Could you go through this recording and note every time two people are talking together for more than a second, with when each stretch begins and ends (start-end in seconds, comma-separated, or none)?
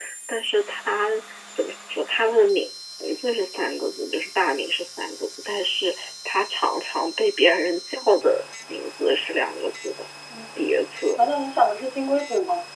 none